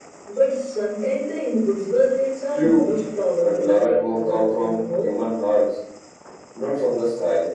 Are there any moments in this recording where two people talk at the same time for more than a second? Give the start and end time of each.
3.4-5.2

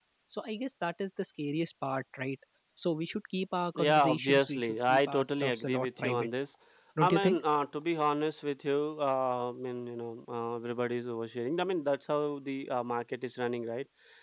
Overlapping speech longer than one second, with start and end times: 3.8-6.3

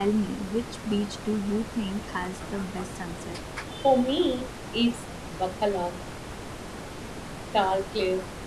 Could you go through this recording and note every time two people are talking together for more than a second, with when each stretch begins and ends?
none

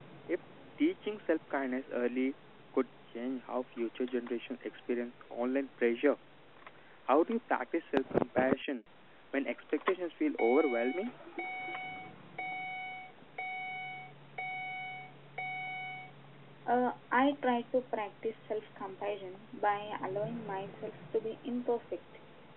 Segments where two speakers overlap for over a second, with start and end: none

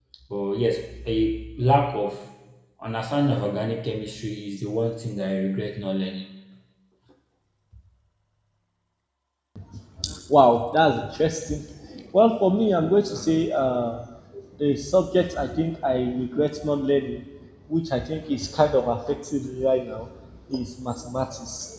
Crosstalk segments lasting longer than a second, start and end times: none

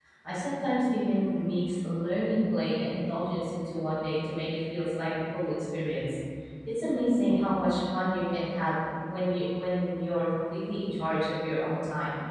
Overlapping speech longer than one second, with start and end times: none

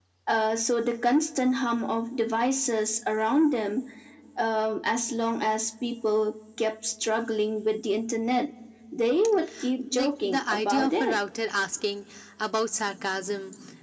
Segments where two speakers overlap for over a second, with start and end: 9.9-11.2

